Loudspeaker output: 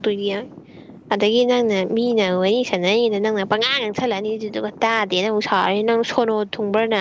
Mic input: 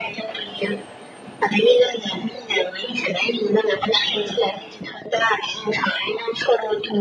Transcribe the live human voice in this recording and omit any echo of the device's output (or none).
none